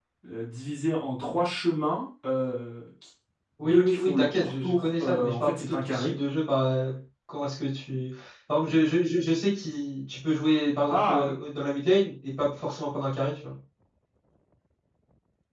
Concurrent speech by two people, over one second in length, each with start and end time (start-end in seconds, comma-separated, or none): 3.6-6.1